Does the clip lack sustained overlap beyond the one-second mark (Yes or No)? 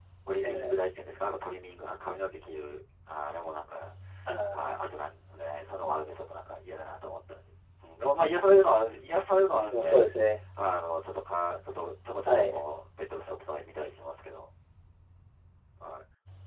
Yes